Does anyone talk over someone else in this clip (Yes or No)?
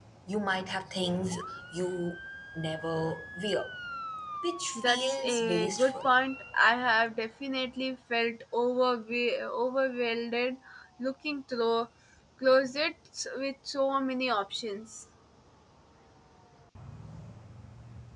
Yes